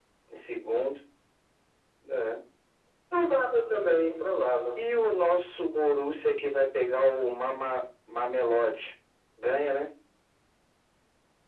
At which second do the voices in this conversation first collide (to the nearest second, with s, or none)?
none